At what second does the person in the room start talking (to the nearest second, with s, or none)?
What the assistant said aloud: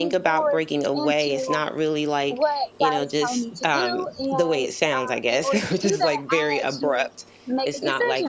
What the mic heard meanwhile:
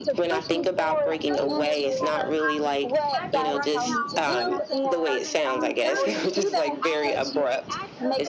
1 s